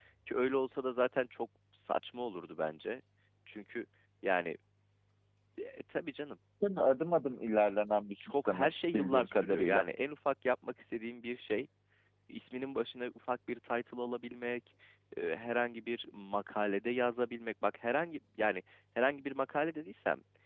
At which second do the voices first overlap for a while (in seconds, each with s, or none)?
8.2 s